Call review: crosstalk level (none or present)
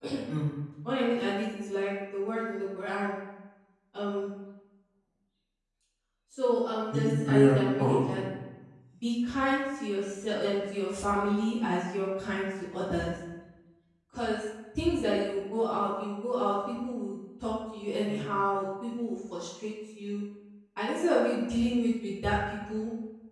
present